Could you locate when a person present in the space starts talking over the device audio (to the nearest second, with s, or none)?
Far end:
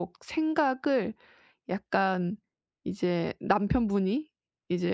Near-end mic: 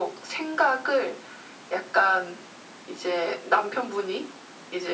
none